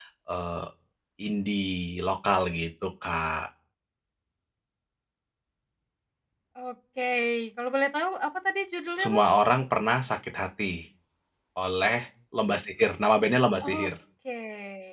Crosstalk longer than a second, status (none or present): none